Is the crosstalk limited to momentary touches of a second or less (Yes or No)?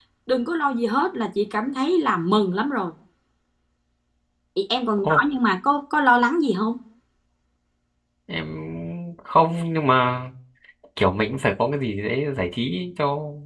Yes